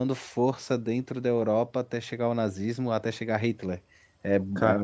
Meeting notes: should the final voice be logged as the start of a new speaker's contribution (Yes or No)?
No